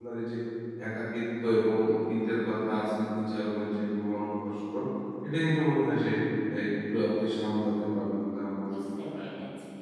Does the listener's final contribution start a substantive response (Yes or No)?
Yes